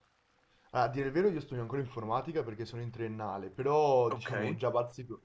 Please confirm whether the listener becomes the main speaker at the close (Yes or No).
No